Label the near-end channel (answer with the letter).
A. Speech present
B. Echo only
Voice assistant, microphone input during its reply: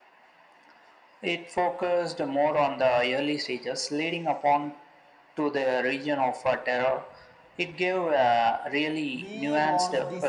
A